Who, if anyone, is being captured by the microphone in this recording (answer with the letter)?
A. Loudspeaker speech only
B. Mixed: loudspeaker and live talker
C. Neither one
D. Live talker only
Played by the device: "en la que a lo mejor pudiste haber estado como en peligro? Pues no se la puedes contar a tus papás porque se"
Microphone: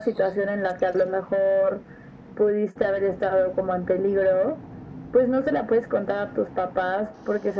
A